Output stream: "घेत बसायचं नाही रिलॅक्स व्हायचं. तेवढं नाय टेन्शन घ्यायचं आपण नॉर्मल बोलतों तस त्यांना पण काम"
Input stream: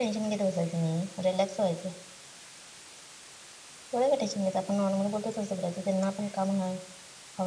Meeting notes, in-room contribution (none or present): none